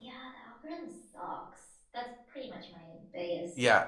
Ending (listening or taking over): taking over